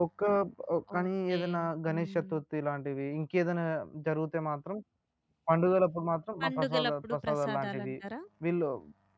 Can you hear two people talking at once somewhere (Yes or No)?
Yes